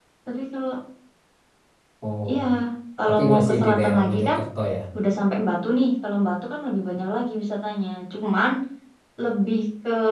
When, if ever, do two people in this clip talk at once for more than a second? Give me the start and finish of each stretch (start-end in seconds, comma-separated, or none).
3.1-4.4